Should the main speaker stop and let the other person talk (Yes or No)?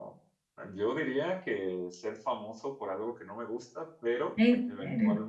No